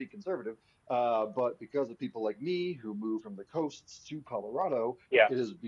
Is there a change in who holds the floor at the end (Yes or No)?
No